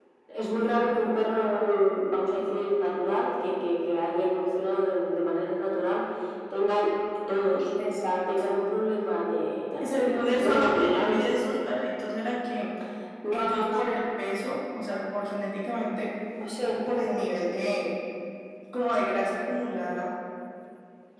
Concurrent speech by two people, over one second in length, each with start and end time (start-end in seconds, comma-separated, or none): 9.8-11.3